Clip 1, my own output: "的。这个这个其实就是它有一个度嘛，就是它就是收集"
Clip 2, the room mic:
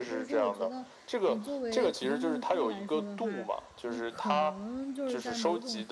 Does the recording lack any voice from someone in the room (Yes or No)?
No